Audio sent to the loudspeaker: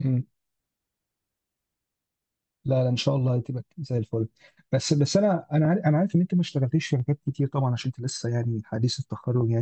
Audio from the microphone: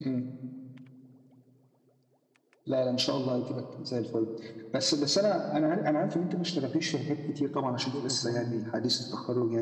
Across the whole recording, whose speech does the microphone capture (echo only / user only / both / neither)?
both